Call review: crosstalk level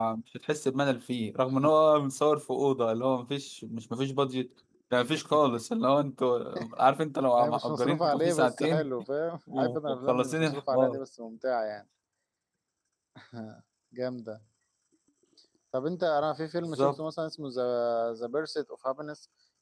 present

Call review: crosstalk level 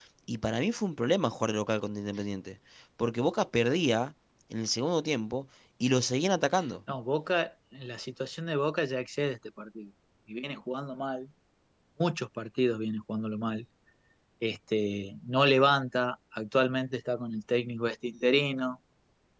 none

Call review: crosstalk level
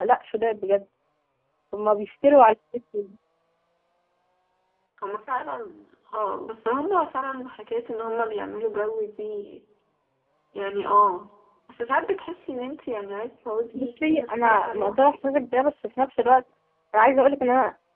present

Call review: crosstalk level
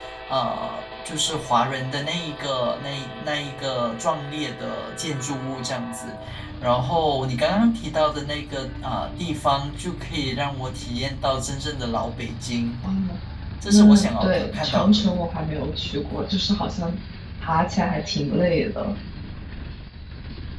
present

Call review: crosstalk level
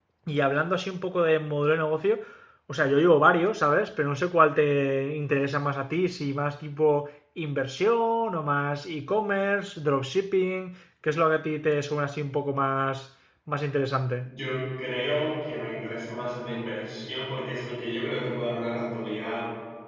none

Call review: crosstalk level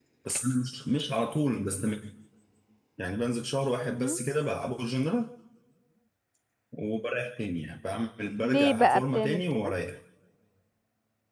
present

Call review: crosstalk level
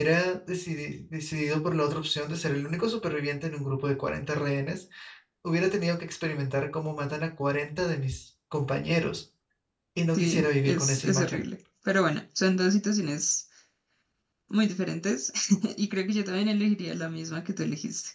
present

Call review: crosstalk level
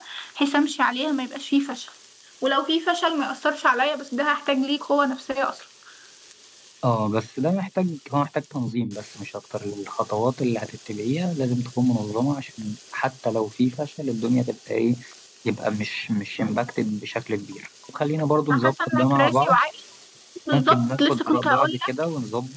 present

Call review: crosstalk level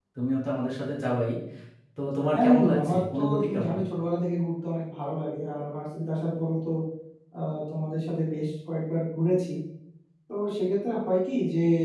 present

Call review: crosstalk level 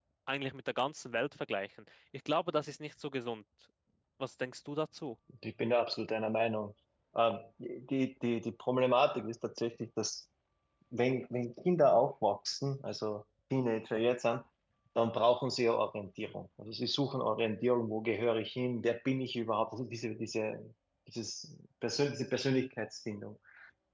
none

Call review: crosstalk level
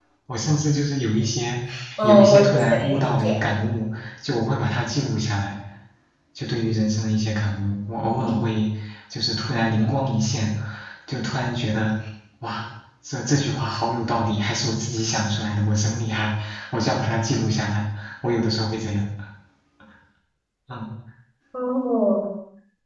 present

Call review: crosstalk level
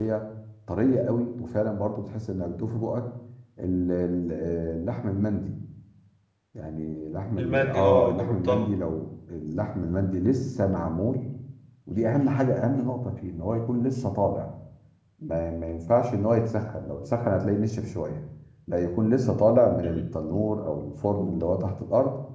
present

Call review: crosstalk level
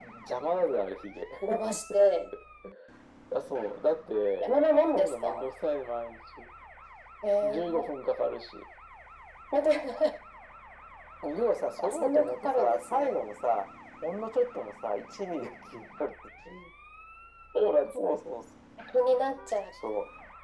present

